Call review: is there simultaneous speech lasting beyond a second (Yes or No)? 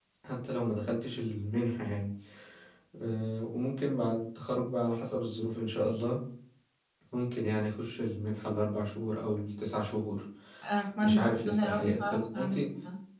Yes